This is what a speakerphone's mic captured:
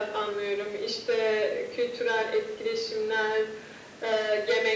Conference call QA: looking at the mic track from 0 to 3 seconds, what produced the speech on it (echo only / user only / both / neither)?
echo only